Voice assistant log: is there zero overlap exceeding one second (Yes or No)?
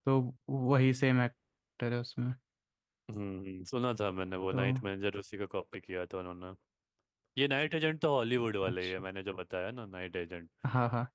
Yes